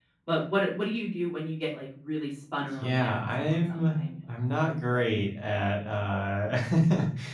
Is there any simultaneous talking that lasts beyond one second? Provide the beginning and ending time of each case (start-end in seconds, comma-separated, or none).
2.8-4.0